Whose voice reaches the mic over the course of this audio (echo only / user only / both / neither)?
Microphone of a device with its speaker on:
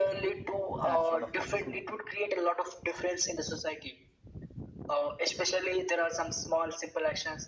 both